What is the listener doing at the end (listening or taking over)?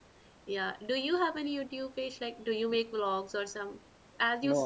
taking over